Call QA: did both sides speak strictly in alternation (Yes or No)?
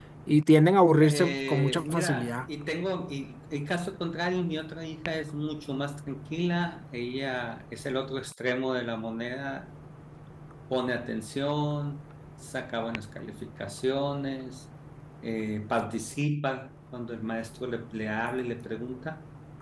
No